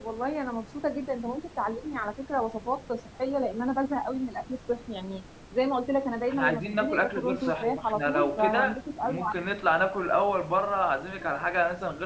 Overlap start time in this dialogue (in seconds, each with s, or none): 6.3 s